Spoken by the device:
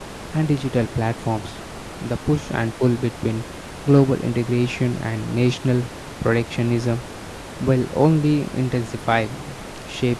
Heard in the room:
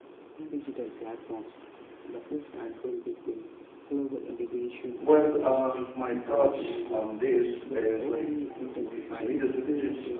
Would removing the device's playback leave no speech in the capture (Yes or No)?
No